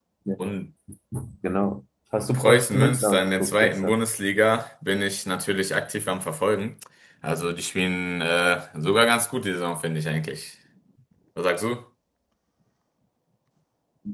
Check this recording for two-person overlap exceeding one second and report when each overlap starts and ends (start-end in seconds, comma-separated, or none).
2.3-4.0